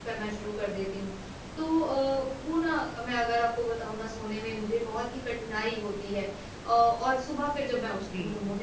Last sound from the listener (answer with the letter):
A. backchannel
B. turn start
A